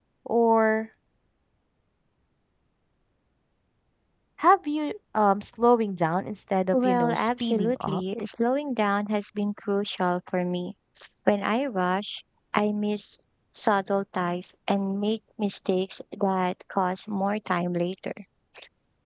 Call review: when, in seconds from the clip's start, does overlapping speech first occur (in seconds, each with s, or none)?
6.7 s